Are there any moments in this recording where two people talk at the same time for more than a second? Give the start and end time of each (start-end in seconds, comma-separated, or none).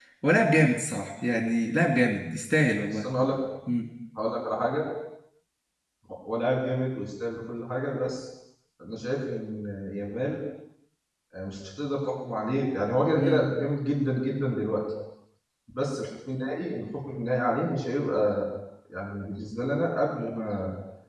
none